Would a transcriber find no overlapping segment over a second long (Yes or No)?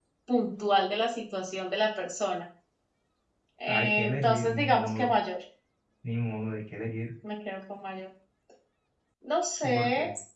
No